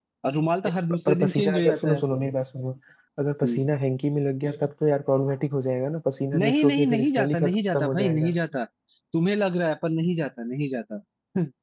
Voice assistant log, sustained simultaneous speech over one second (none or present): present